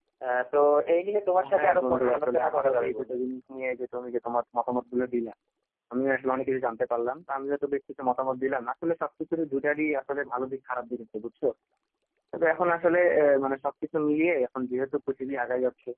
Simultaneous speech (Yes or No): Yes